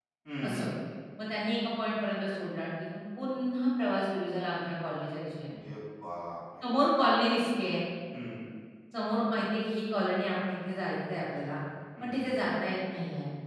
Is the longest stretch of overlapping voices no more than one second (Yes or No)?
Yes